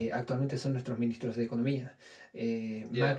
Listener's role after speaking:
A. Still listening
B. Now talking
A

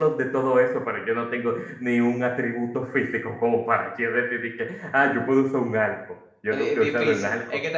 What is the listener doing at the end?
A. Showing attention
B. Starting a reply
B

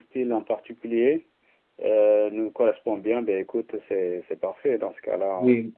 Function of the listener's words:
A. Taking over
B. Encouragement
A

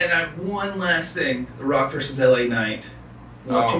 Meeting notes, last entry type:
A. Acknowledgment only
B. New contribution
B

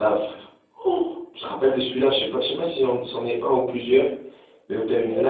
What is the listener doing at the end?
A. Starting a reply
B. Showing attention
B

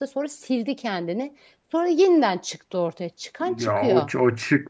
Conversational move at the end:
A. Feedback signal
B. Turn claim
B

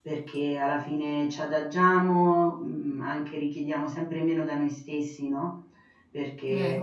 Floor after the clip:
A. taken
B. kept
B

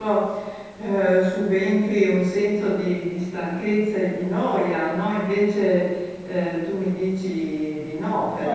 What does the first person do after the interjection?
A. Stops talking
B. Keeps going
A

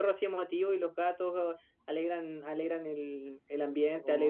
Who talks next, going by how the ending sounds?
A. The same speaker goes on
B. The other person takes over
A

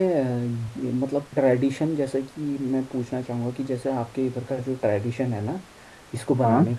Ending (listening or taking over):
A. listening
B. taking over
A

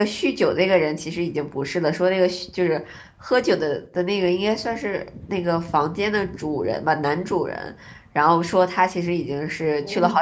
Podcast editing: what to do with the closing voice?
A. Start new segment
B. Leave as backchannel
B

